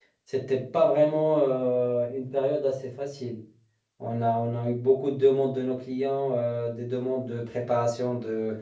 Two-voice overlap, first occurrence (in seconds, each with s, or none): none